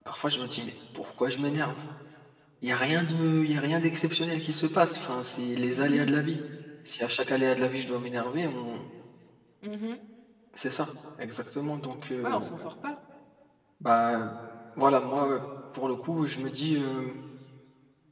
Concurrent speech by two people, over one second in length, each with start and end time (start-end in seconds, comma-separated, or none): none